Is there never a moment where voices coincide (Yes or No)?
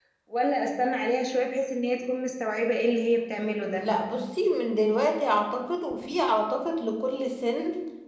Yes